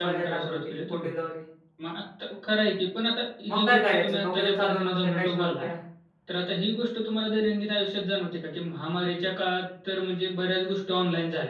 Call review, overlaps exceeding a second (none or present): present